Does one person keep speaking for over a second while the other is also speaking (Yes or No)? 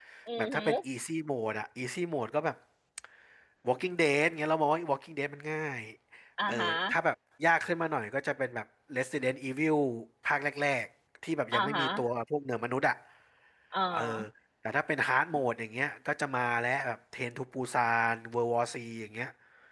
No